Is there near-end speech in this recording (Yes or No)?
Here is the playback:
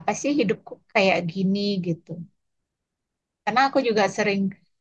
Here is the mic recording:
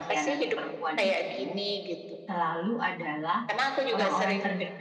Yes